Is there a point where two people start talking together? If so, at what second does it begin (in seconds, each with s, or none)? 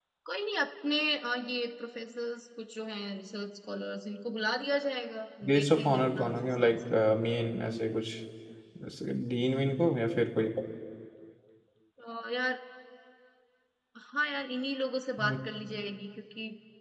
5.4 s